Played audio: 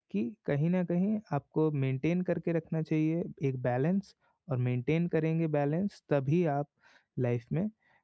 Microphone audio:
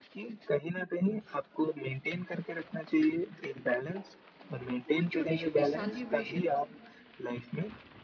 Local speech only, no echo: तो वो छोटे-छोटे सेलिब्रेशन

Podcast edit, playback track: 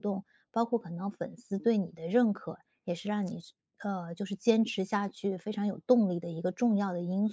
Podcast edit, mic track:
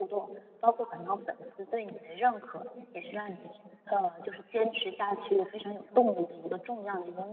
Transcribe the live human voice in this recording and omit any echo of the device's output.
none

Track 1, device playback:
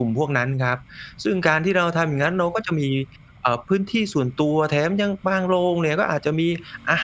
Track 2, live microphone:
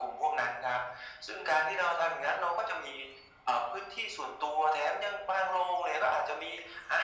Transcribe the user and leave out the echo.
none

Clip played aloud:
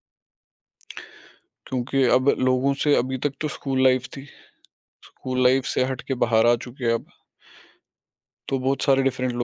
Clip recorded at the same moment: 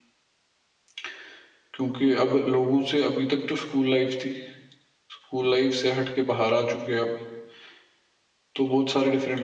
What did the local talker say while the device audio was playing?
none

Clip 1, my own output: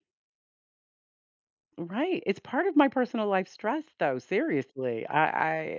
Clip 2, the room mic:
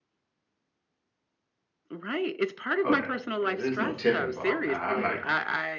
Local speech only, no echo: Oh, no, no, no, there's no tip involved. now. I'm not

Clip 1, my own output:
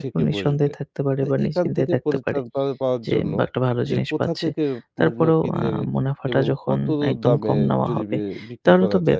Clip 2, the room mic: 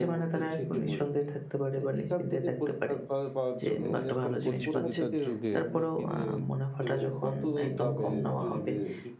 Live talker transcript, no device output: এ এখন প্রতিযোগিতার যুগে

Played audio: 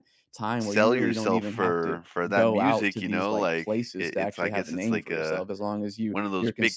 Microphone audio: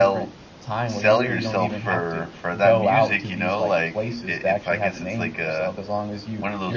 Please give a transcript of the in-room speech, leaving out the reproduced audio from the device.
none

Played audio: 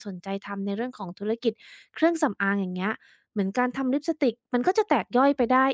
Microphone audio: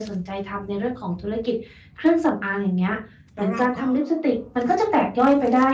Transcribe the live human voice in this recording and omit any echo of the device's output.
แล้วเราก็

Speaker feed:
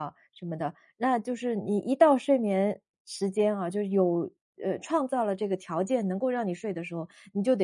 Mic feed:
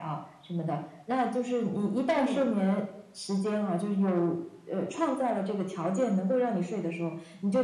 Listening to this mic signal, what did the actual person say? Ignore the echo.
嗯，

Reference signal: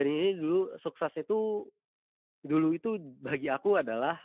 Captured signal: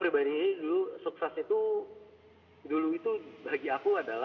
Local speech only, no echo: none

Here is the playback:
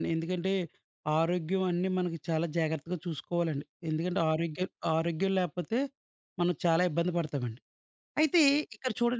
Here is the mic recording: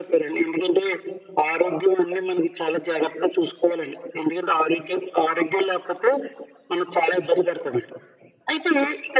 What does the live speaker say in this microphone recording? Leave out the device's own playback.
none

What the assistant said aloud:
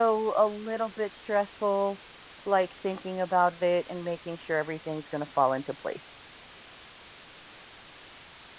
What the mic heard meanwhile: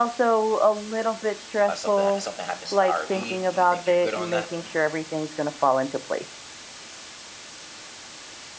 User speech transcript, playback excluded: uh, something something happens to the RV, do you think you're good on that?

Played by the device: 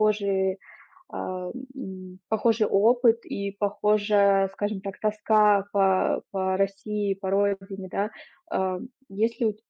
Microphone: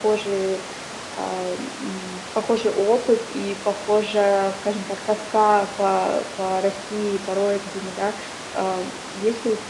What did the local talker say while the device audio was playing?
none

